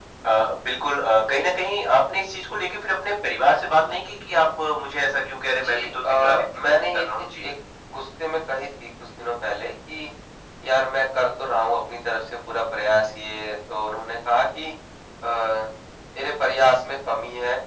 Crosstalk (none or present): present